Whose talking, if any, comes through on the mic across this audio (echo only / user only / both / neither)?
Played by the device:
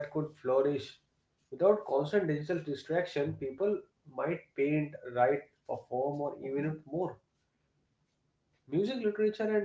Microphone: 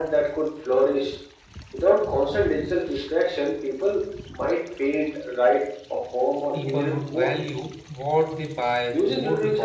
both